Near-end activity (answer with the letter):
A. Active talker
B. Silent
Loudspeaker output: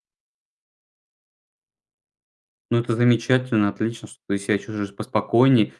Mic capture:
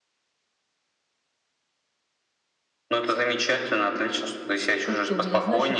A